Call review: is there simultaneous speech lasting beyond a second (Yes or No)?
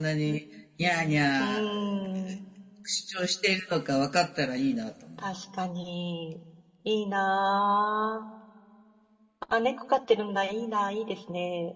No